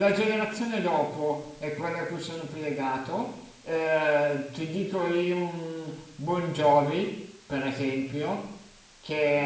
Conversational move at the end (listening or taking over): listening